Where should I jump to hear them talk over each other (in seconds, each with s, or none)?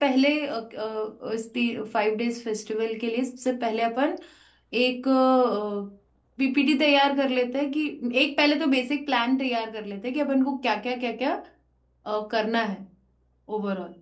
none